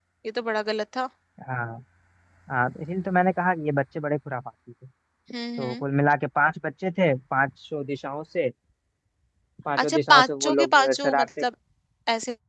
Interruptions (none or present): present